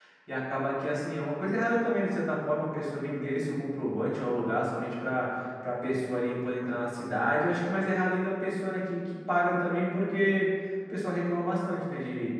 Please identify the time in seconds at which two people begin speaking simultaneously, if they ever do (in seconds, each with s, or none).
none